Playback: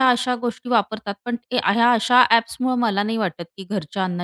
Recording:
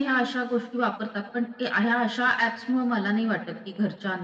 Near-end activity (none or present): none